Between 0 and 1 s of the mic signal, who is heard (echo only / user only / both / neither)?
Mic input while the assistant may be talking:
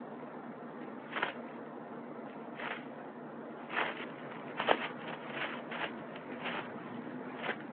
neither